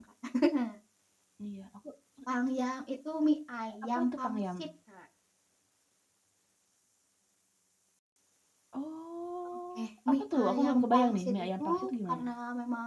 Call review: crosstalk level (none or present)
present